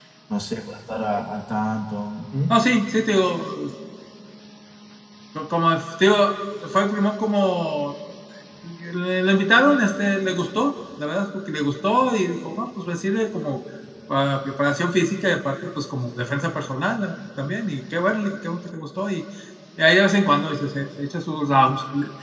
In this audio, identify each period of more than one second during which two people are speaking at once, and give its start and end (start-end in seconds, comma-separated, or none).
none